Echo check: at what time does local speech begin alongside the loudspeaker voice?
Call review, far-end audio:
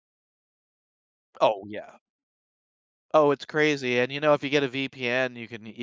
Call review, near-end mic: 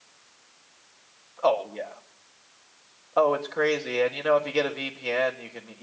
none

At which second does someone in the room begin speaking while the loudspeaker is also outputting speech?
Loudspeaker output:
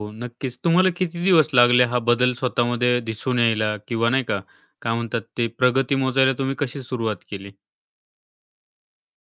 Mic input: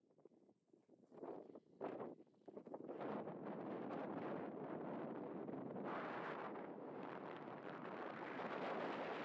none

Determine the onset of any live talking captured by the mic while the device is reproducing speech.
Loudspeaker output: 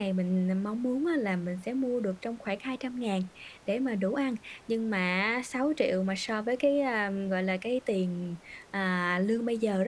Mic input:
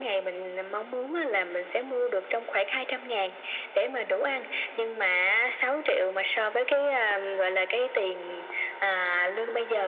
none

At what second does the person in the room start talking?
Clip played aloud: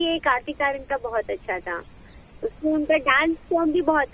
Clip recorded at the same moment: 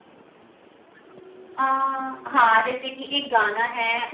1.6 s

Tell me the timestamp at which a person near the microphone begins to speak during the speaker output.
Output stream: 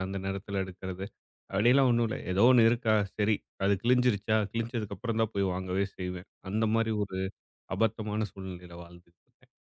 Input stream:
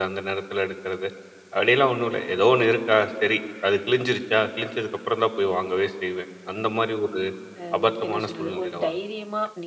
7.6 s

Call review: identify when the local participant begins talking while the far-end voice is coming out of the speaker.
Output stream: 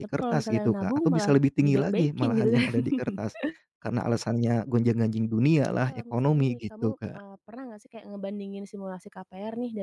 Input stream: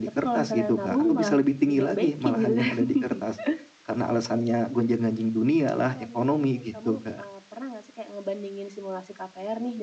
0.9 s

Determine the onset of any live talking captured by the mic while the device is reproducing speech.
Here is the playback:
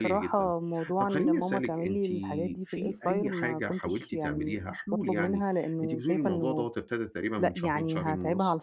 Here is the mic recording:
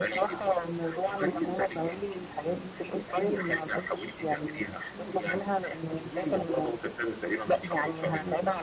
none

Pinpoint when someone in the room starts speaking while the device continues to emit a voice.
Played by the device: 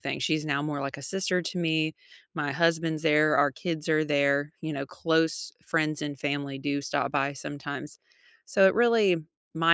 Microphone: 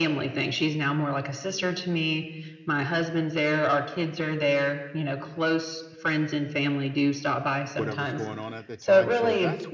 7.8 s

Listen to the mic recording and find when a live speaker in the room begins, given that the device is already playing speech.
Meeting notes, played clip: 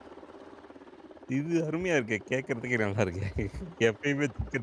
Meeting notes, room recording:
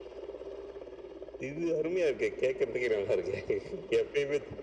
none

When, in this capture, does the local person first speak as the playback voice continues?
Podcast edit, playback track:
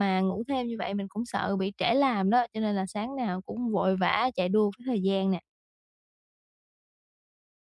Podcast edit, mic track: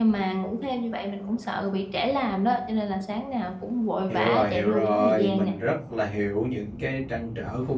4.1 s

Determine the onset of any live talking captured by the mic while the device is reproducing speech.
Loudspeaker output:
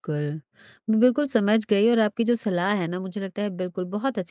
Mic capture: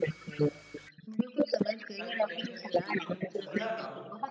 2.0 s

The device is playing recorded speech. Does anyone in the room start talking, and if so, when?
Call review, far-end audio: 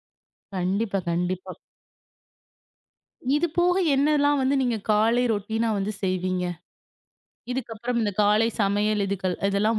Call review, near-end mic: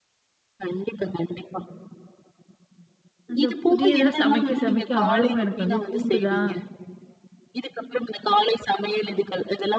3.3 s

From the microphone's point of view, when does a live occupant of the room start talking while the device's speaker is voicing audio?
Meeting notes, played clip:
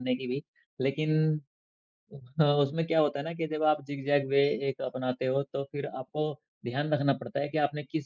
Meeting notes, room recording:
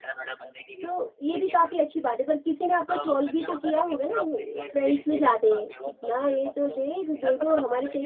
0.8 s

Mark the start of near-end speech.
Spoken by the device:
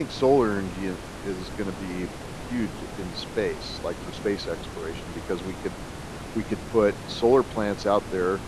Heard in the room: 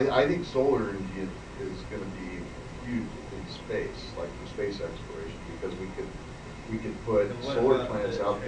7.2 s

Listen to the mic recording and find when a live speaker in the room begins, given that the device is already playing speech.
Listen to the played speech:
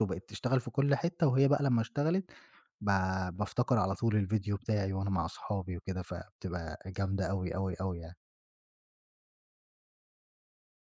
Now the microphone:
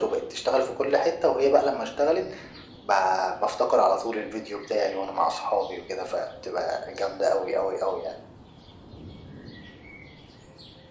none

